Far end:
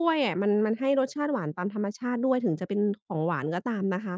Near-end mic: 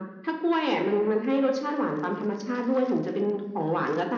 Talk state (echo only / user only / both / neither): echo only